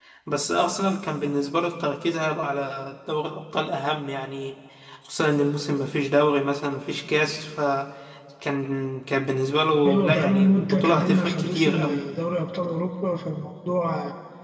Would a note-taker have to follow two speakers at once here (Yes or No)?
Yes